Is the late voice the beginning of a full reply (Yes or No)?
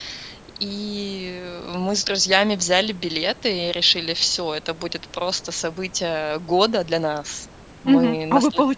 Yes